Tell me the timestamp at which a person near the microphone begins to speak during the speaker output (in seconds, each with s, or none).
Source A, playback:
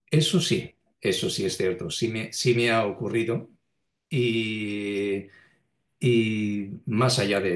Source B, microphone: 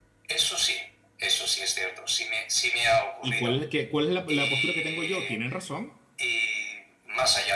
3.2 s